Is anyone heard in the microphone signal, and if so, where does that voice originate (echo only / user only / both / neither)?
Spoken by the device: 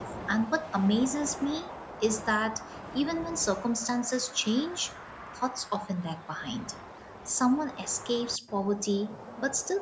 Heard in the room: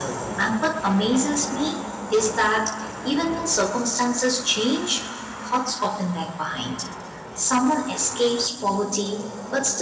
echo only